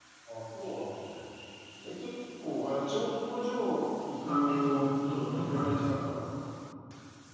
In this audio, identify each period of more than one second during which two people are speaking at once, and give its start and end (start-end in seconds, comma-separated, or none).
4.2-6.0